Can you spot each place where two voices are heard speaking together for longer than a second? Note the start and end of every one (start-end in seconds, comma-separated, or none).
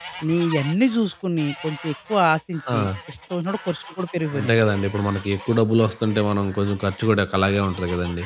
none